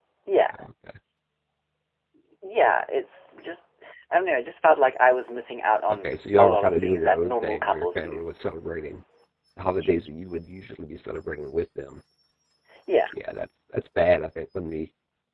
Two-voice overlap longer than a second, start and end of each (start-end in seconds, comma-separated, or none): 6.0-8.2